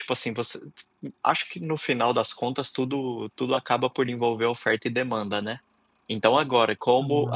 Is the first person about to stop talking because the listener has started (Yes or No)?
No